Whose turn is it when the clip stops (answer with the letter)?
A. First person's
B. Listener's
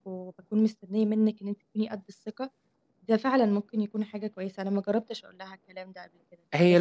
B